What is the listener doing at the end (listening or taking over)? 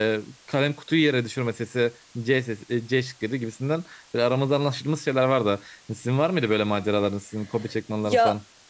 taking over